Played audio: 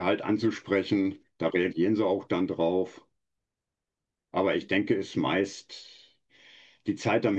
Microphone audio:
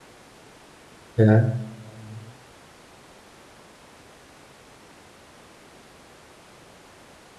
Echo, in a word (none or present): none